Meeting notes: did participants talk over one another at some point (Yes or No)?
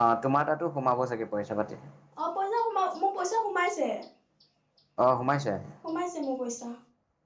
No